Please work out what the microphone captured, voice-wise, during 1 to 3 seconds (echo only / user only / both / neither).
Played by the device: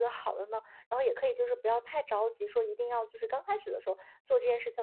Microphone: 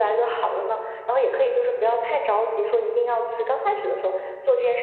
echo only